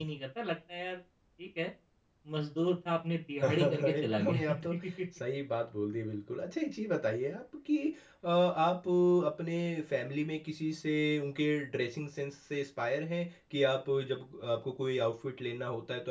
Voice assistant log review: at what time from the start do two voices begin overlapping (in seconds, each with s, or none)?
3.4 s